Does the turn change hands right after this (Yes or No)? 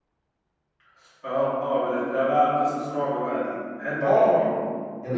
Yes